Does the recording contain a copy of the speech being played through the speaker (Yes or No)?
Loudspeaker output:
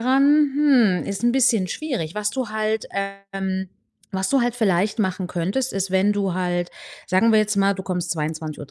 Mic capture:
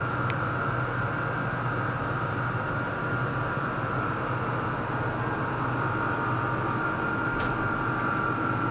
No